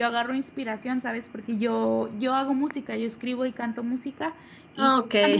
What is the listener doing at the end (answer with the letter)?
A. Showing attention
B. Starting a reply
A